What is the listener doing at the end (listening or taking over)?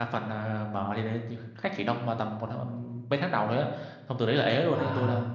listening